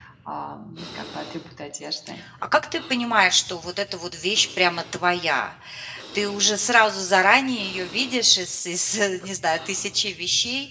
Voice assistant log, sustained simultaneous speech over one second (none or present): none